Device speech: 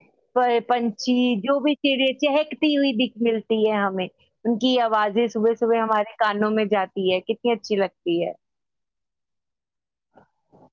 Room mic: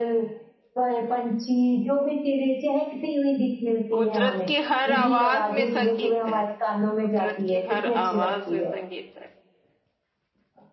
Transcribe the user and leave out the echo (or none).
قدرت کی ہر آواز میں سنگیت ہے قدرت کی ہر آواز میں سنگیت ہے